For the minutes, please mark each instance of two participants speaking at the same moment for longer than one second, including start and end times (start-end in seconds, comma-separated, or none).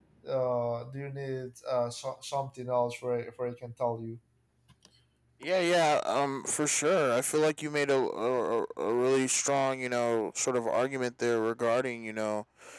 none